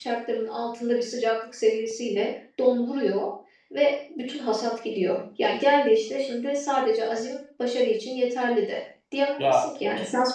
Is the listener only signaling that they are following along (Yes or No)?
Yes